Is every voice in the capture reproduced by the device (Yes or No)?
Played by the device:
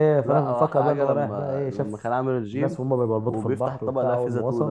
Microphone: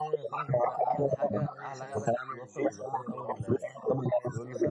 No